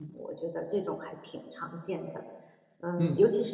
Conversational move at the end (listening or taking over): taking over